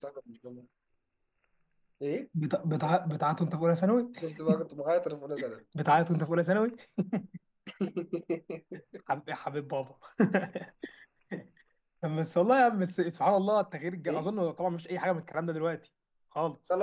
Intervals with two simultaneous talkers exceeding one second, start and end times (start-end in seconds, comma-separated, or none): none